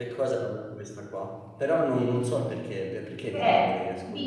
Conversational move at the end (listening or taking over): taking over